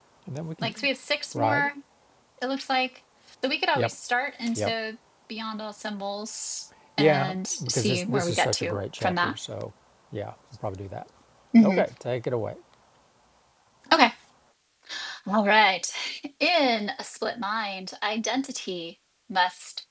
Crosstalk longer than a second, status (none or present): present